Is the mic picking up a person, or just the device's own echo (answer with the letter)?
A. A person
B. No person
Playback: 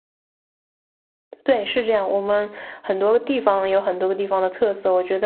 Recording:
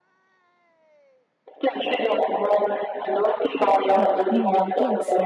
A